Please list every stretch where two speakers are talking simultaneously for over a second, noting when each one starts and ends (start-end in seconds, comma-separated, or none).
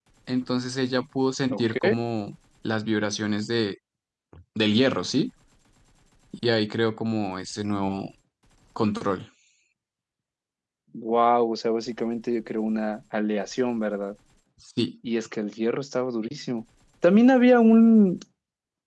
none